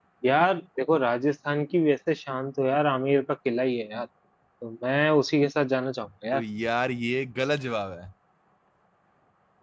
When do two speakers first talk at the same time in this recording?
none

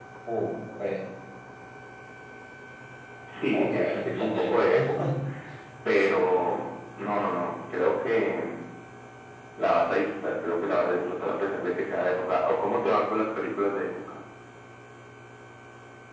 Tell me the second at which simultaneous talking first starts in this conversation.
3.5 s

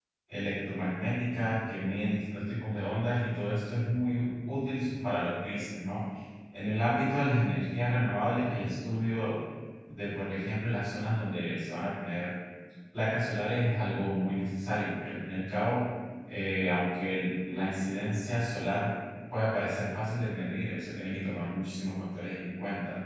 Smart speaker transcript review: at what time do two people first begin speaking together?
none

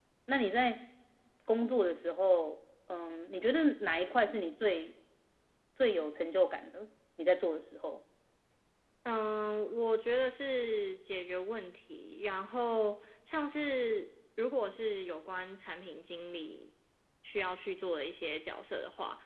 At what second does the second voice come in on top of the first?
none

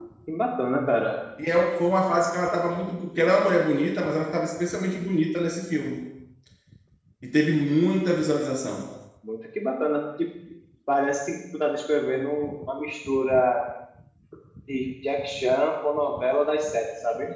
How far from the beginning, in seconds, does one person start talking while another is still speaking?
none

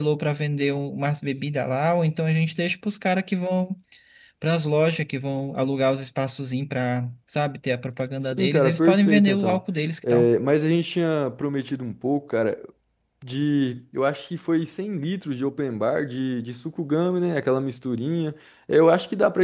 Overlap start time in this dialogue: 8.2 s

